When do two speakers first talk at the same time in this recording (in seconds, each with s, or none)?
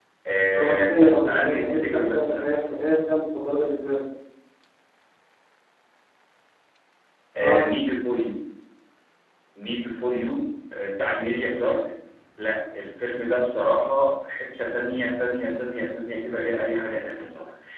0.6 s